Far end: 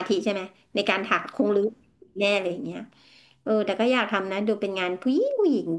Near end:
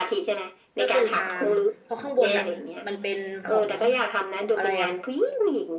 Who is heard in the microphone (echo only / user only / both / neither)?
both